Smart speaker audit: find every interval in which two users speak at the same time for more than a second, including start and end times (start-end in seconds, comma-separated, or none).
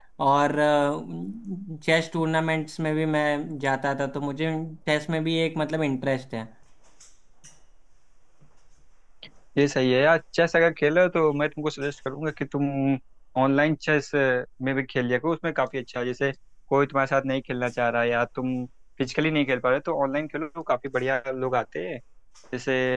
none